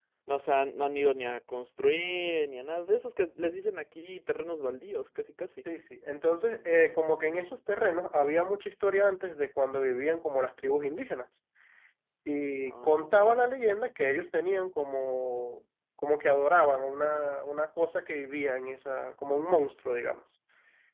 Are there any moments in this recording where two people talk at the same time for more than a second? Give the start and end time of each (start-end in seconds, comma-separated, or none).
none